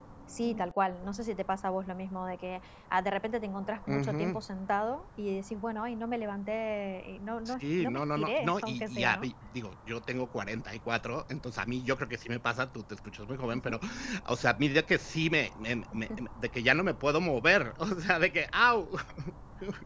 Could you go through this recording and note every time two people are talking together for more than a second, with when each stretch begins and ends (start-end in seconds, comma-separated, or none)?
7.5-9.3